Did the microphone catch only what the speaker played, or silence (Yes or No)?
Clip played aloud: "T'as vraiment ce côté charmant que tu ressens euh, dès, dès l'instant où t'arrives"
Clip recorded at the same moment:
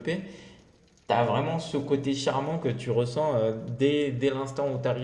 Yes